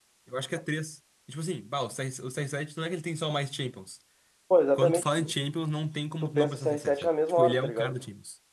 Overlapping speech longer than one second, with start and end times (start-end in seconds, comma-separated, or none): 6.2-7.9